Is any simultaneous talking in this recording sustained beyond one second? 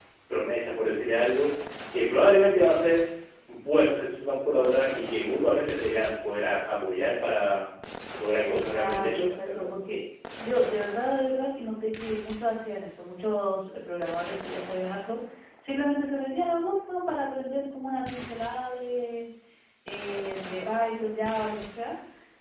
Yes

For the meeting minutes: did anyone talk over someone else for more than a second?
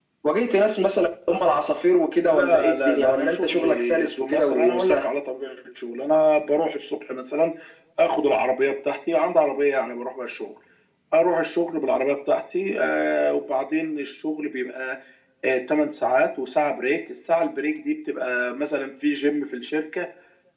Yes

